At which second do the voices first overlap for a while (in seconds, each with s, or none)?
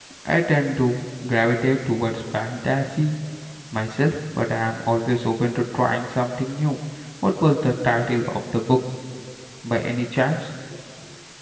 none